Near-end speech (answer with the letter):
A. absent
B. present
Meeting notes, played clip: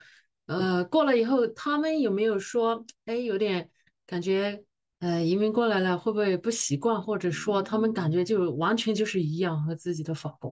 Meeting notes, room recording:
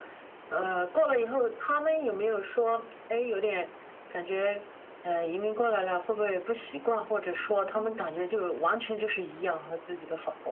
A